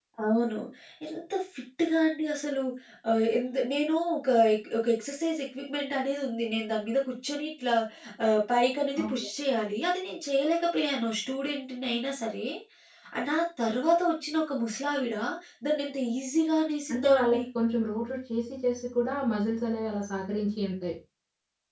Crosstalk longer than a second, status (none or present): none